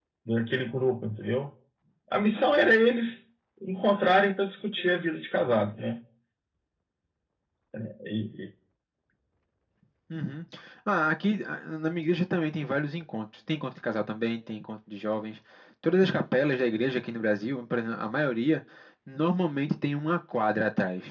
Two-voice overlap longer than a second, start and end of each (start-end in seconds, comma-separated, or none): none